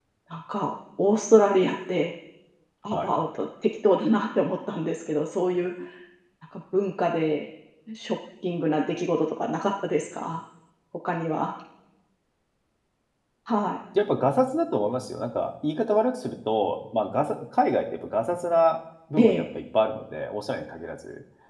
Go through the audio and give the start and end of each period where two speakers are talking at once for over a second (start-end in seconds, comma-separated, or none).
none